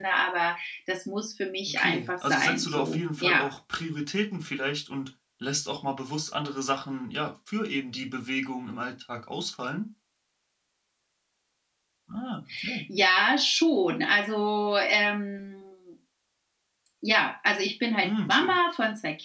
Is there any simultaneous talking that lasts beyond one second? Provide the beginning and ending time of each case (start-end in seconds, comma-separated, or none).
1.7-3.5